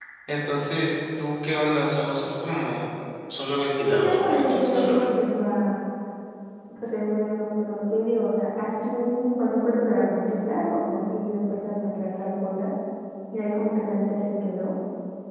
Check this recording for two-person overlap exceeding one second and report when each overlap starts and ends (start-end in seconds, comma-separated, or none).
3.7-5.0